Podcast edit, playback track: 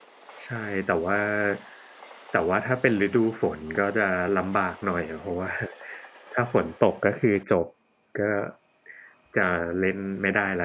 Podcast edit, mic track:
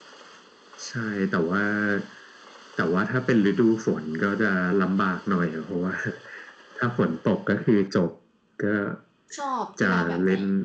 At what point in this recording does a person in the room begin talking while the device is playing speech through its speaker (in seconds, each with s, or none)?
9.4 s